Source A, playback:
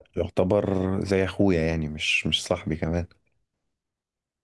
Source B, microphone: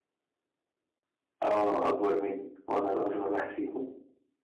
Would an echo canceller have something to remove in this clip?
No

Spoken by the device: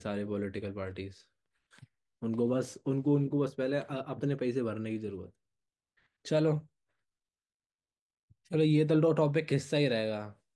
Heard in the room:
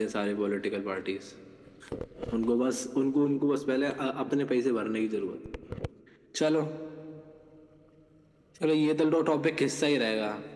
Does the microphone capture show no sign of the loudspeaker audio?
No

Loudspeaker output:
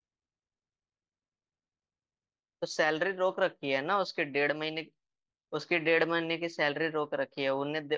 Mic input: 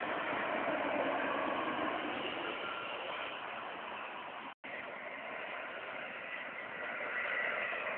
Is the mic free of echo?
Yes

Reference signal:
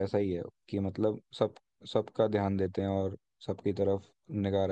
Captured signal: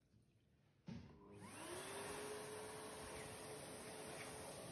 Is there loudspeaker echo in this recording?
No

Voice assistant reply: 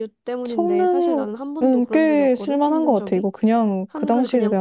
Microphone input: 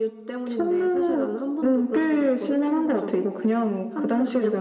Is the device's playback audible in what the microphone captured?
Yes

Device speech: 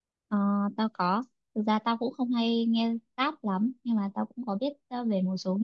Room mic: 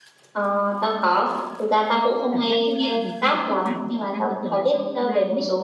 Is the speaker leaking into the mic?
Yes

